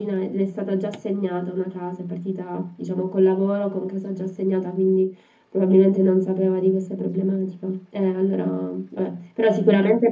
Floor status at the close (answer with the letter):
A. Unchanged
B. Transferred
A